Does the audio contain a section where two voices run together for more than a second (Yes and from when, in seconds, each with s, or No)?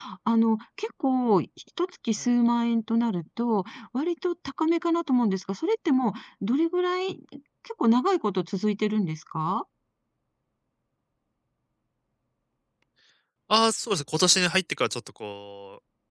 No